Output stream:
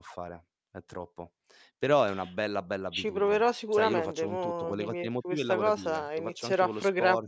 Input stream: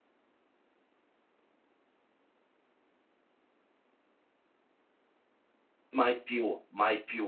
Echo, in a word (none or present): none